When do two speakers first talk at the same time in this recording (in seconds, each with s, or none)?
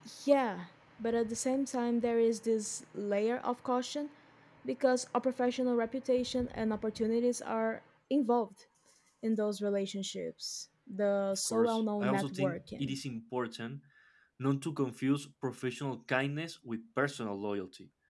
11.5 s